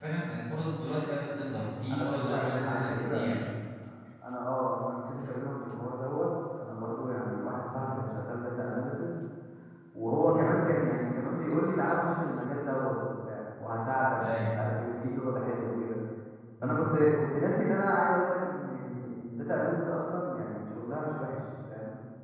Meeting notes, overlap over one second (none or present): present